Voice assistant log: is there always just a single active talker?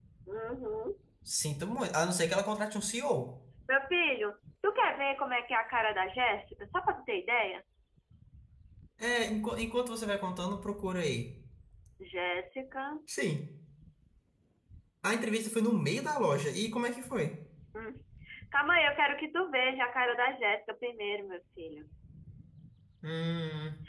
Yes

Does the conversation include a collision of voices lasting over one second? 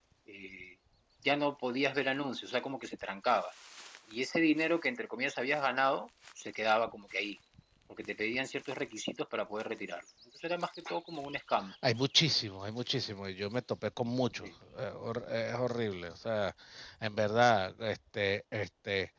No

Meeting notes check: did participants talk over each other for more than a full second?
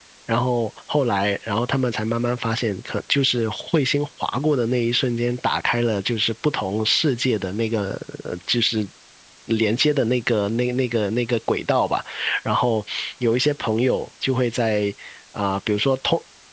No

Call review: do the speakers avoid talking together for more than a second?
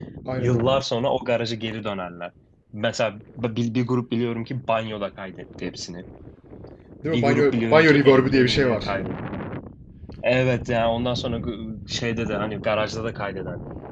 No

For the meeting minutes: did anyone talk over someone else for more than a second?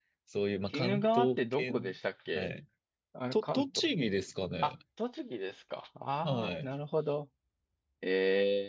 Yes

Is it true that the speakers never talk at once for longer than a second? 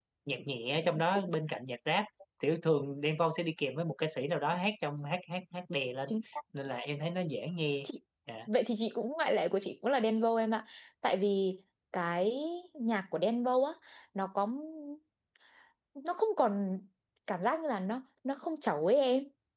Yes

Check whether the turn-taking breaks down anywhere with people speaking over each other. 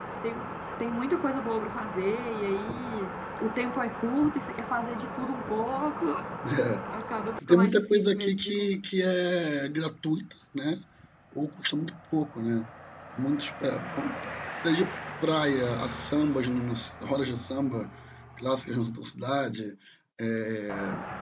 Yes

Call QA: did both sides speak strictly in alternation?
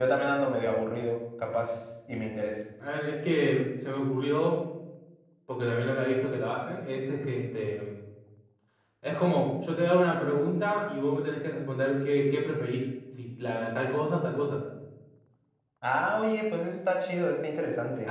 Yes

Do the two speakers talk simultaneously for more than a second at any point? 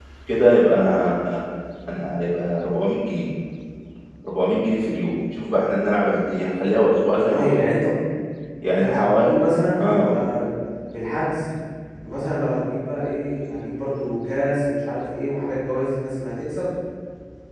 No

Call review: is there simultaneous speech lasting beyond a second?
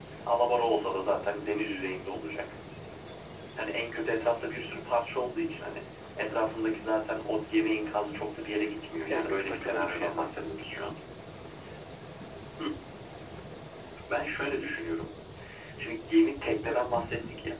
Yes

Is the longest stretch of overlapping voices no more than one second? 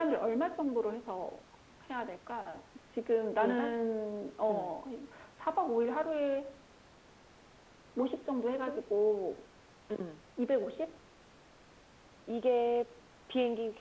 Yes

